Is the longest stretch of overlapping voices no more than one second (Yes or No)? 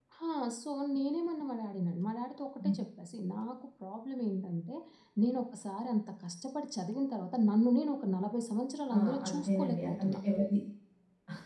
No